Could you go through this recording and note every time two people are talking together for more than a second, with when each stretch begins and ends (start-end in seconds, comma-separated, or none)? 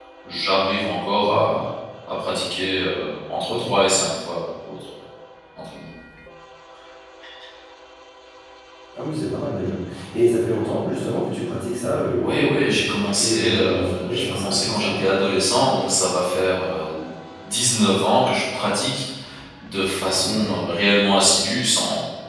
12.2-14.9